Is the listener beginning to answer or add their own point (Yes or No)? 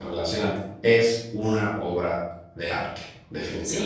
Yes